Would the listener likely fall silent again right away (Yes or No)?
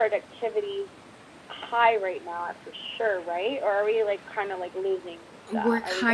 No